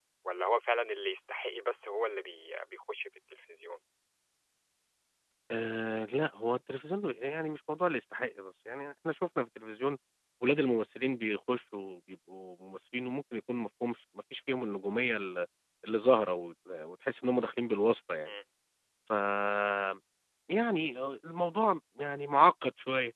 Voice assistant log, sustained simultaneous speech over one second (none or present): none